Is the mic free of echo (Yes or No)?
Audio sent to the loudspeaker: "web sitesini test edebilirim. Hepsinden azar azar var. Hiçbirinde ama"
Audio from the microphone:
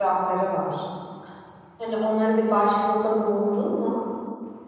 Yes